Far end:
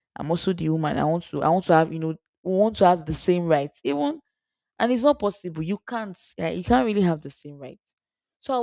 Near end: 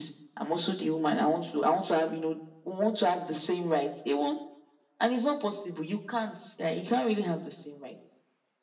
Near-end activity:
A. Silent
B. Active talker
A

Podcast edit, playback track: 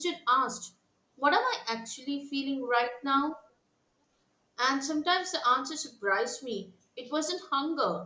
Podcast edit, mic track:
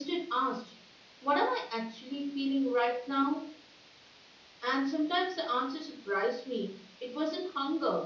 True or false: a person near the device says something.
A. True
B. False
B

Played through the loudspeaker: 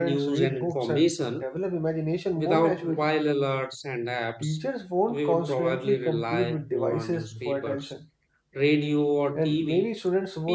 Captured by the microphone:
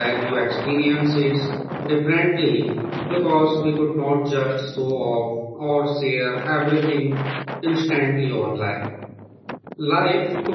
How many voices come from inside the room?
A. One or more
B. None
A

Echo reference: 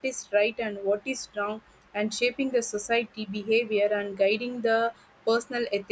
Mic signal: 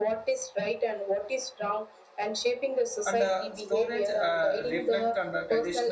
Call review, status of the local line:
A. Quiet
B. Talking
B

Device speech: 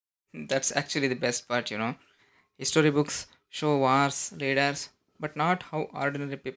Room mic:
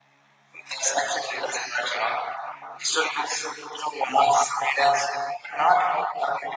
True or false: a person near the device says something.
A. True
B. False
B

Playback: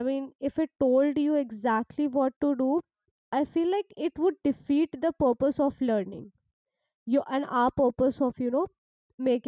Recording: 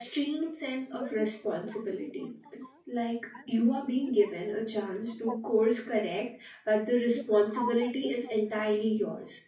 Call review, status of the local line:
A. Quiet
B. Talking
B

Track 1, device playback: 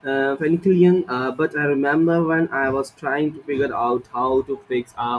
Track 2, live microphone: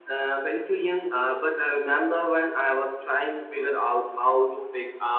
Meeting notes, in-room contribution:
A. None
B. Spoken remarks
A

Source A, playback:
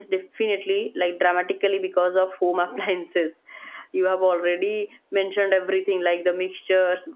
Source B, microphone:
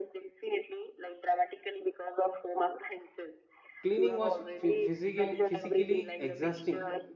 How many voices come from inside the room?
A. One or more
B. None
A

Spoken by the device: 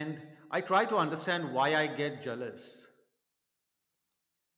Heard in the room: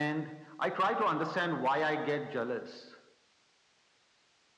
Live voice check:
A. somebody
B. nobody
B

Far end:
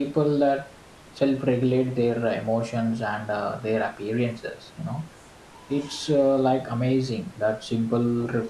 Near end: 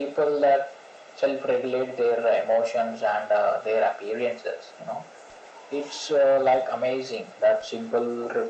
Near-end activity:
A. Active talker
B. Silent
B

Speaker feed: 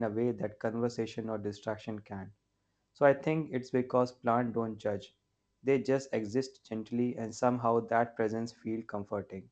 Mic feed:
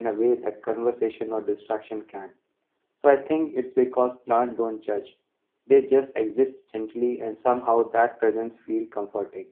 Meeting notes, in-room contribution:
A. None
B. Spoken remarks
A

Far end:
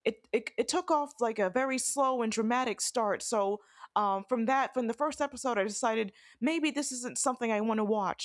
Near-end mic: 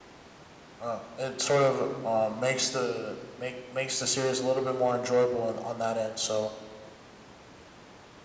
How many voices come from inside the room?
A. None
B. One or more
B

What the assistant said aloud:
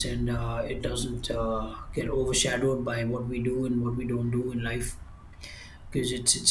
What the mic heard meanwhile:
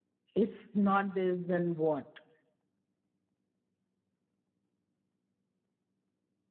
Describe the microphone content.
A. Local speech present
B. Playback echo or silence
A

